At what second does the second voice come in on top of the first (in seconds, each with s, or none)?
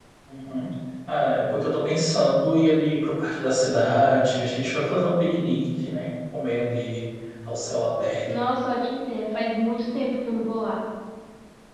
none